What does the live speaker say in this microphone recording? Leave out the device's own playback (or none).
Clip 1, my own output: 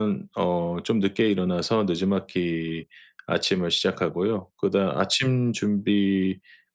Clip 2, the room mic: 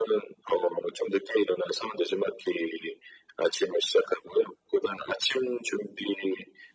none